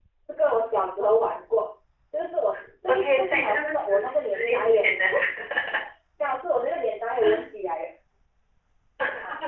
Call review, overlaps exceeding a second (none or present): present